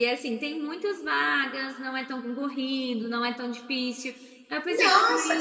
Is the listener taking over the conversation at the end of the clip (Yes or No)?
Yes